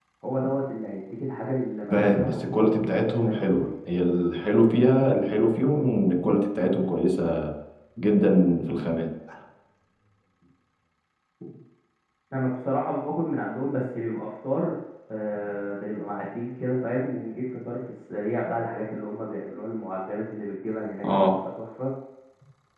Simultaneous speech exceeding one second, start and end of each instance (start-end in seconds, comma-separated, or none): 1.9-3.7